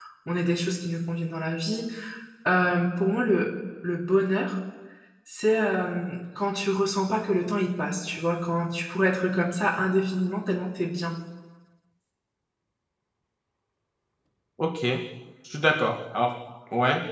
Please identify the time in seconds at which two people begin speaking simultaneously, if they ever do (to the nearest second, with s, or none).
none